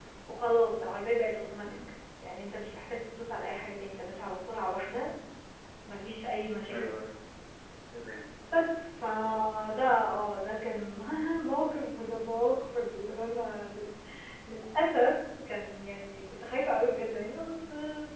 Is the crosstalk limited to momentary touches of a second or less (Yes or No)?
Yes